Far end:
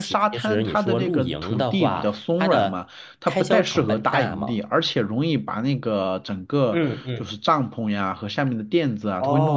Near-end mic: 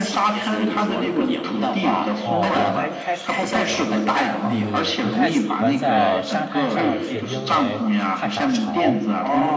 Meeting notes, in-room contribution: present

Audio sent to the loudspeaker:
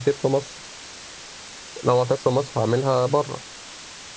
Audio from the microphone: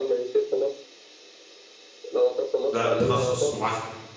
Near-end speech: present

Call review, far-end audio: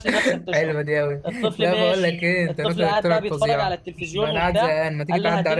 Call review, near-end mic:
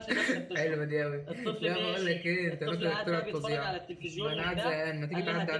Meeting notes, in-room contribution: none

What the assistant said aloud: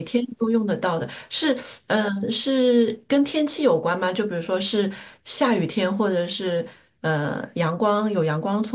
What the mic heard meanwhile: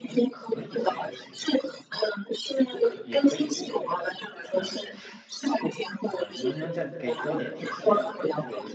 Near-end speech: present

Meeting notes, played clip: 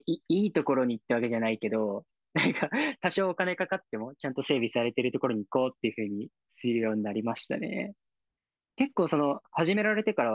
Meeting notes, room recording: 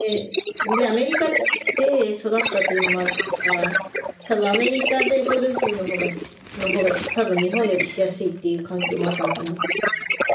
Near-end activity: present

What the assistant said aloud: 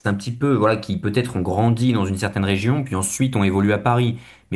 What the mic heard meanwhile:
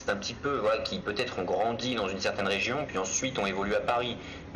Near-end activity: none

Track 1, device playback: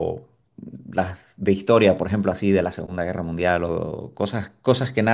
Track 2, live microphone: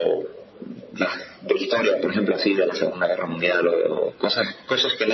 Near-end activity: none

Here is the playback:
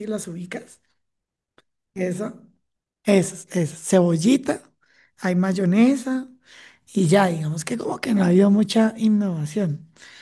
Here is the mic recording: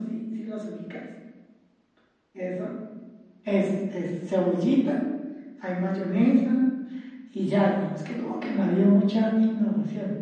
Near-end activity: none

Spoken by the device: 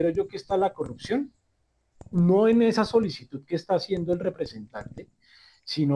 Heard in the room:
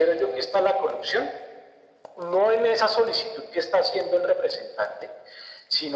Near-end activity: none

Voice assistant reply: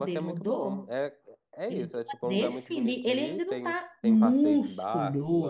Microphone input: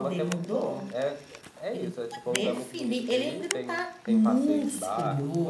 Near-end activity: none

